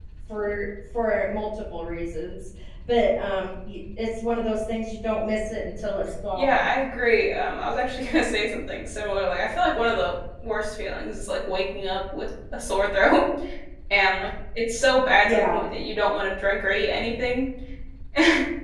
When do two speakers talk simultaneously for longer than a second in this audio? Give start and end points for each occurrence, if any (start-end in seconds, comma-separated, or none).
none